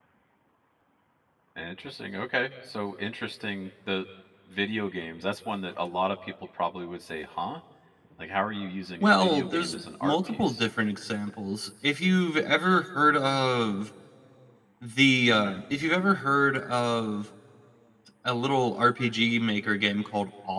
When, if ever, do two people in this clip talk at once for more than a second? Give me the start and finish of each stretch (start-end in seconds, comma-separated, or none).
9.0-10.6